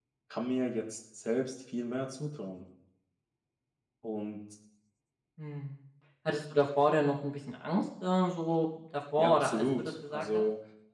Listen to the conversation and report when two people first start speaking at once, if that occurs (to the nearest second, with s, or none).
9 s